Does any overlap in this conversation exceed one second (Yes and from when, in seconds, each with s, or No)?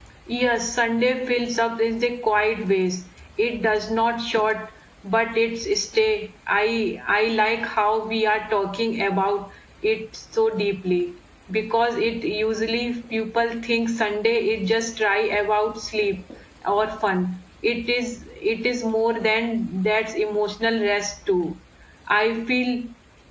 No